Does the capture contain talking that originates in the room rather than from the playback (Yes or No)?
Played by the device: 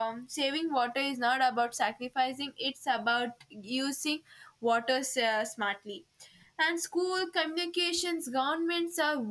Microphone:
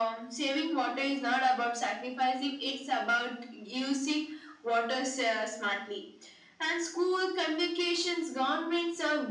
No